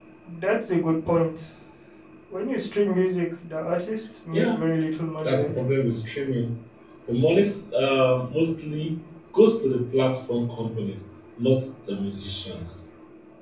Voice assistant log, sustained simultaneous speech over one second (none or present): none